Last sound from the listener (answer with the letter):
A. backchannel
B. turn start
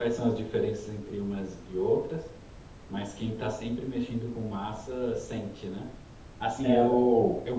A